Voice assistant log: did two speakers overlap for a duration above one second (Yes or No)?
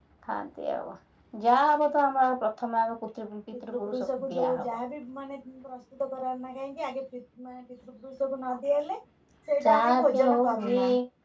Yes